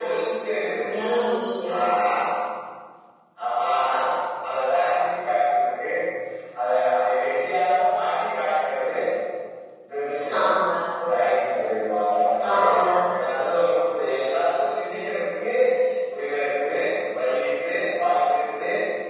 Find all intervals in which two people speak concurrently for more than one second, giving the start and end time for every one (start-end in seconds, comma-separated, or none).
none